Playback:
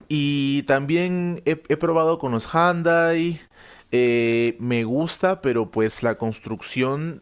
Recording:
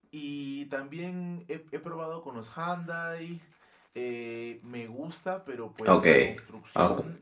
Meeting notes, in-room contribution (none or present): present